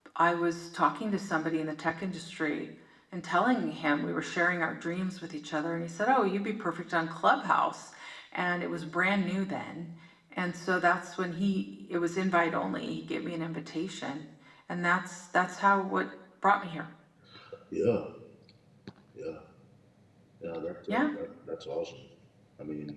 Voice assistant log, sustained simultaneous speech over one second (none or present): none